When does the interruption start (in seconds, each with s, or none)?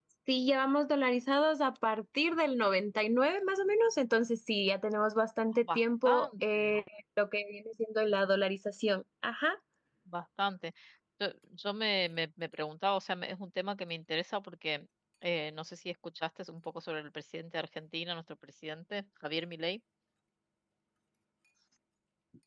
5.5 s